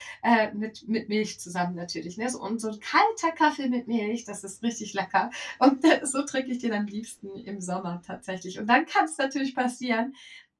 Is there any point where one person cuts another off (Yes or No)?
No